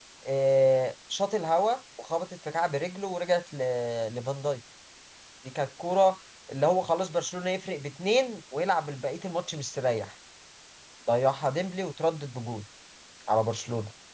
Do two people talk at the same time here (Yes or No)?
No